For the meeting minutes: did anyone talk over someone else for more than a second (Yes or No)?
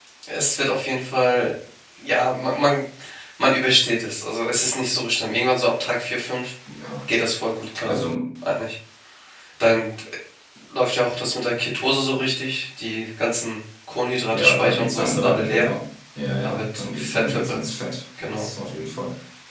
Yes